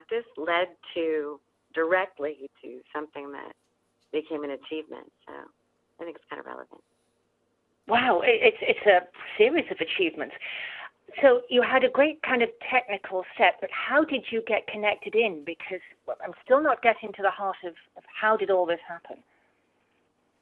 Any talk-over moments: No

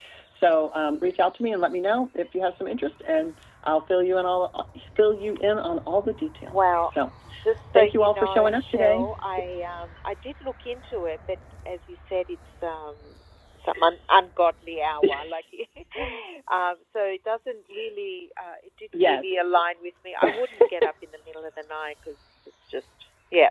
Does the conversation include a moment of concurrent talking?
Yes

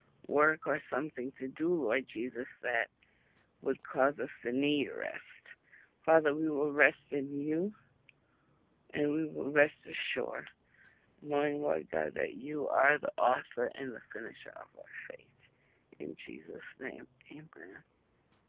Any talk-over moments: No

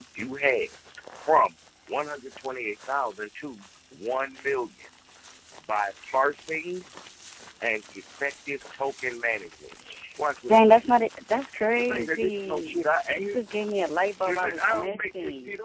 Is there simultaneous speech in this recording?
Yes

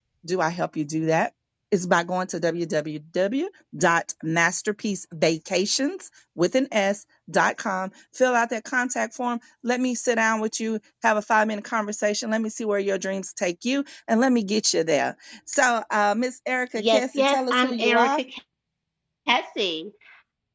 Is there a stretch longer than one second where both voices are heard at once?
Yes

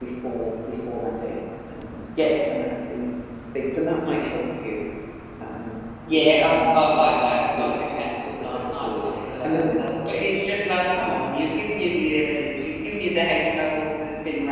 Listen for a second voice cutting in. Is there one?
Yes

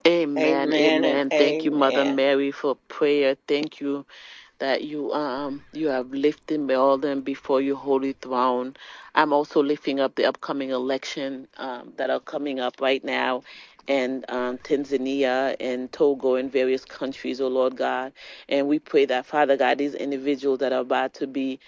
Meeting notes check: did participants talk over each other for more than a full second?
Yes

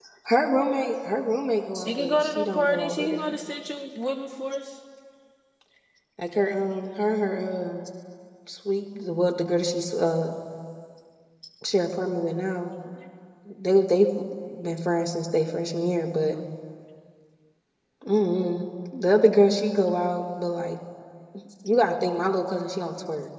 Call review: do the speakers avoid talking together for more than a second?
No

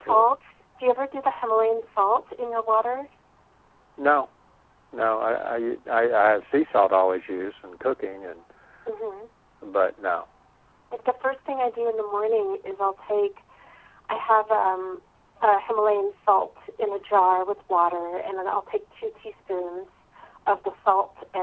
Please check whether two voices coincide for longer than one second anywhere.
No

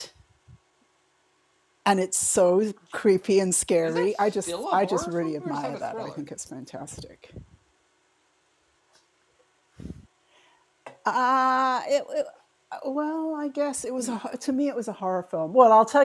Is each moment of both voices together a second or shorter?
No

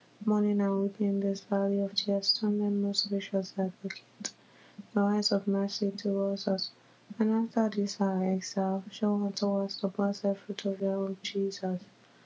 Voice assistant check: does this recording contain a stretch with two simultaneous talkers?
No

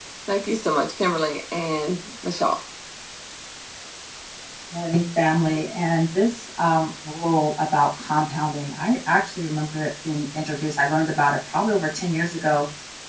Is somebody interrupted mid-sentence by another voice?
No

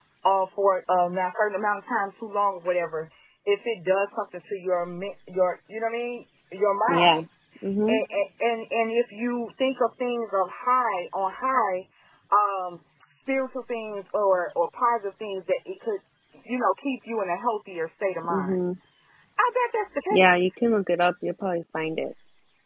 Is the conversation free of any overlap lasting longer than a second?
Yes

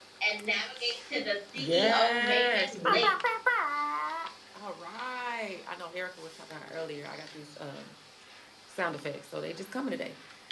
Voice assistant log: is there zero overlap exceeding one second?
No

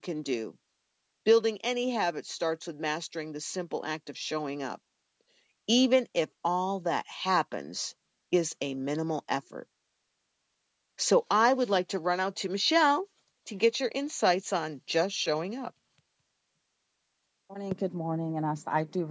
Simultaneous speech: No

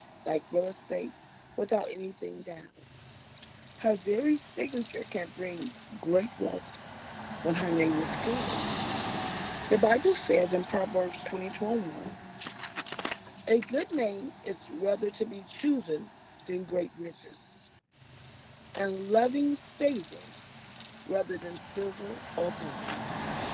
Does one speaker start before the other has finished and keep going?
No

